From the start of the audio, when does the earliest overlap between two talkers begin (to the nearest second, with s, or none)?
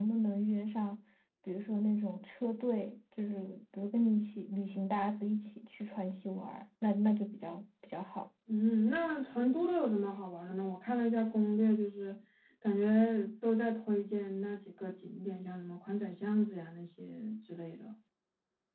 none